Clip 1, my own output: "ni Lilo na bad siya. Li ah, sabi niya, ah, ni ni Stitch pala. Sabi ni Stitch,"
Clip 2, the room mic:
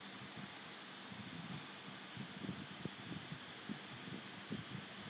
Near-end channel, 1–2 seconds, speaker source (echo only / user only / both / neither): neither